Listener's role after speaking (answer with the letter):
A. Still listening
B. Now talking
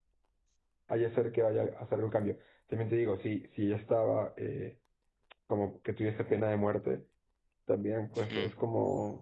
A